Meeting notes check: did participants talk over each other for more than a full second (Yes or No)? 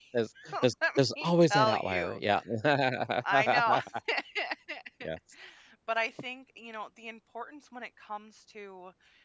Yes